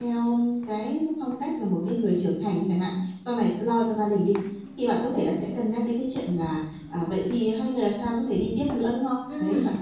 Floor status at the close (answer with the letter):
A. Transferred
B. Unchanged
B